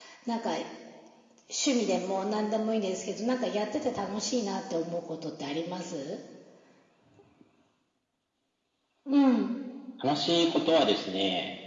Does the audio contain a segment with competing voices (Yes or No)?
No